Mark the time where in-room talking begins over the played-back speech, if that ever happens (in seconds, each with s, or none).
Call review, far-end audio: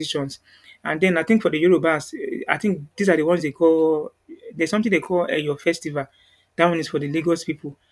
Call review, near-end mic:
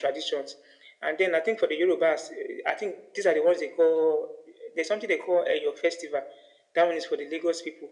none